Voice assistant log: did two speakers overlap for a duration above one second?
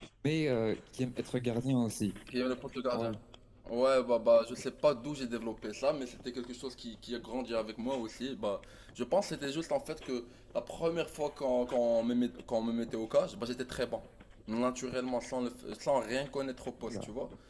No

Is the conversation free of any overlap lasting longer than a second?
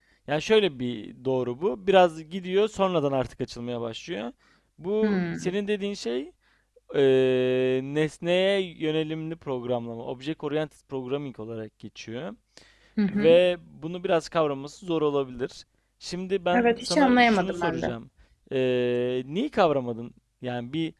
No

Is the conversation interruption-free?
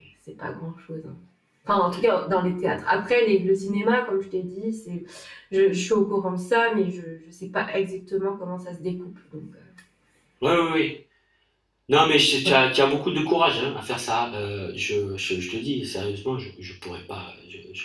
Yes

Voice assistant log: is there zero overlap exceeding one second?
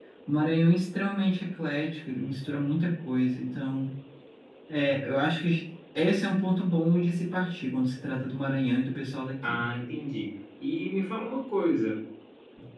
Yes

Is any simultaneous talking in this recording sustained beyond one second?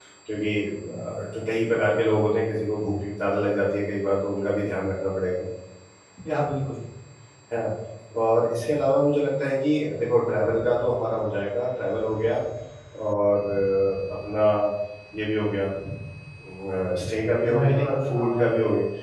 Yes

